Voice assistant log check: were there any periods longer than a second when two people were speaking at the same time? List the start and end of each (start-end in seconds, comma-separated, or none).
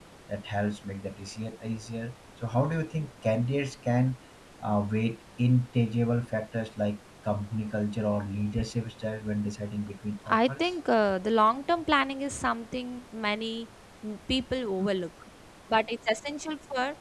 none